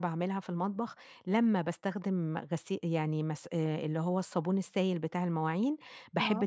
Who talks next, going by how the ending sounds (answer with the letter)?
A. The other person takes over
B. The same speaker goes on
B